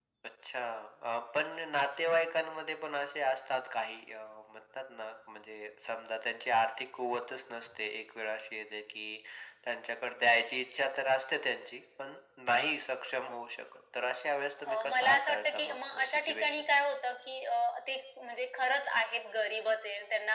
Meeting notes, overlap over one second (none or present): present